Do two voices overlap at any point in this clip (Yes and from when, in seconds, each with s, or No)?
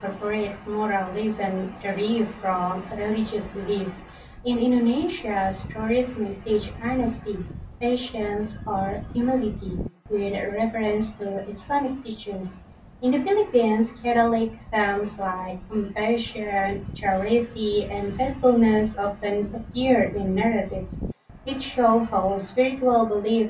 No